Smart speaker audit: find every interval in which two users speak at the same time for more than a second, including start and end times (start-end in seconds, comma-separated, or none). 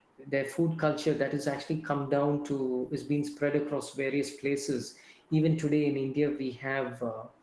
none